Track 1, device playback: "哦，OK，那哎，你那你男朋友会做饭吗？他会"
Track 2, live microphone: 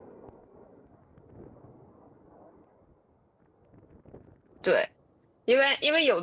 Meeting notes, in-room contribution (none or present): present